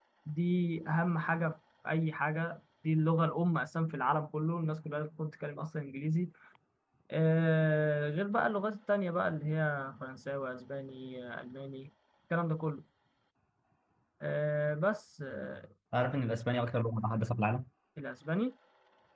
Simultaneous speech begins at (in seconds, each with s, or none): none